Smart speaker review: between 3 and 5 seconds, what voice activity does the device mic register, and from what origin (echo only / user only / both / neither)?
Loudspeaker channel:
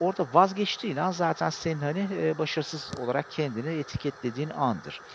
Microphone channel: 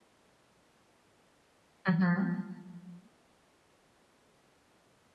neither